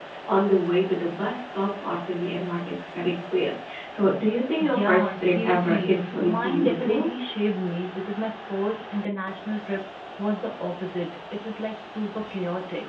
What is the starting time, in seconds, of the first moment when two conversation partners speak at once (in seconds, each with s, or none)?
4.6 s